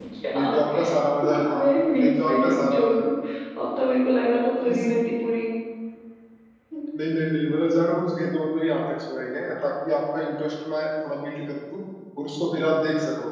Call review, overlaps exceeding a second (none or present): present